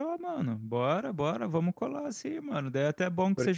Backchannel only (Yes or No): Yes